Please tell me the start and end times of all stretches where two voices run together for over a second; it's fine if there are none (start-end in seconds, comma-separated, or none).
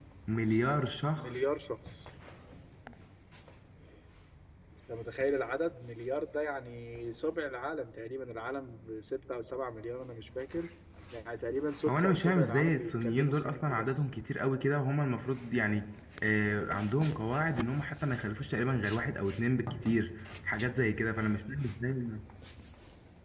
11.9-14.0